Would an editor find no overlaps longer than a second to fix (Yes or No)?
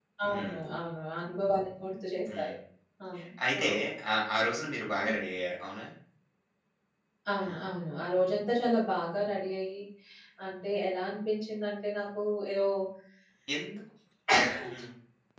Yes